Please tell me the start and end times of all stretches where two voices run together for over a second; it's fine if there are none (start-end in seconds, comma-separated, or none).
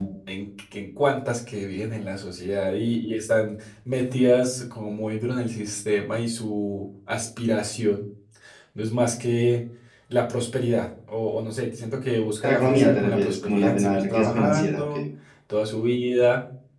12.4-14.9